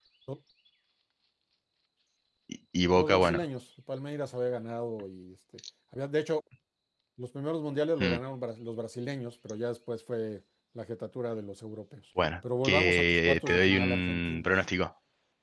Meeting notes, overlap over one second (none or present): present